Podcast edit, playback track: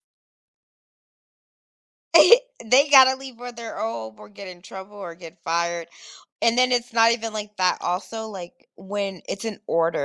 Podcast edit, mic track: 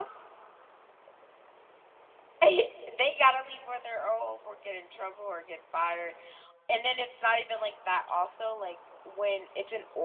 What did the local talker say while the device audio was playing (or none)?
none